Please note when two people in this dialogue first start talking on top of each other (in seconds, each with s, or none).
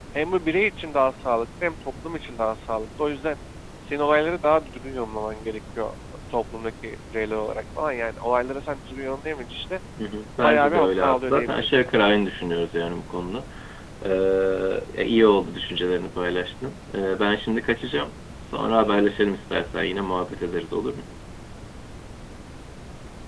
10.4 s